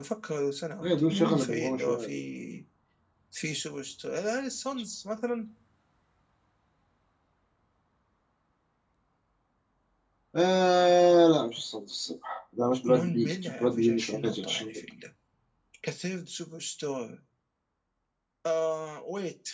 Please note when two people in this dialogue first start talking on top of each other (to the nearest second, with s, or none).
1 s